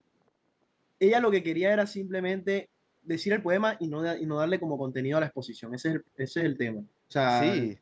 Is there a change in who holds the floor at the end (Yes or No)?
No